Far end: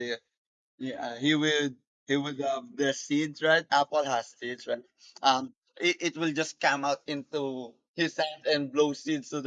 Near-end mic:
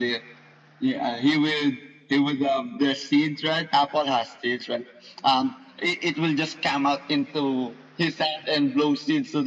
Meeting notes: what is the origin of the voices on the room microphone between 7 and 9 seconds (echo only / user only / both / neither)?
echo only